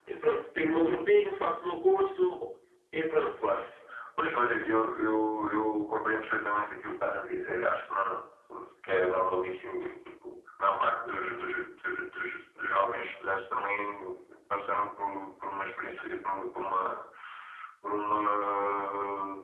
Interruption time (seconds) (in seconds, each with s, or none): none